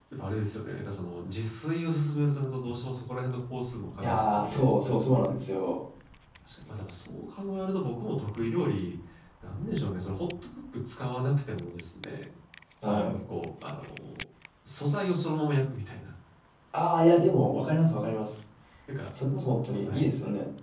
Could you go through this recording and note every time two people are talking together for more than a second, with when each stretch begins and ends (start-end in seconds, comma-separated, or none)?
4.0-5.2